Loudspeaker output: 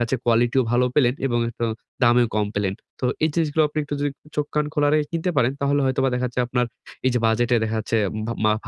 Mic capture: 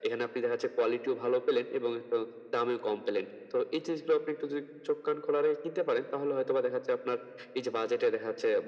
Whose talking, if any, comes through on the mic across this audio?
echo only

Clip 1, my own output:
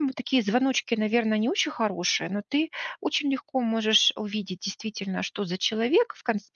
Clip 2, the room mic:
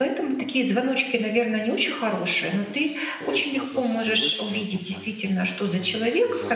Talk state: both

